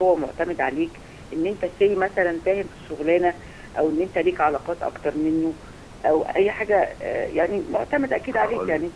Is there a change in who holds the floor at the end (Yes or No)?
No